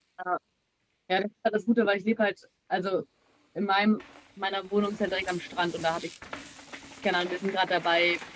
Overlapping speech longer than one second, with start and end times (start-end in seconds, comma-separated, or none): none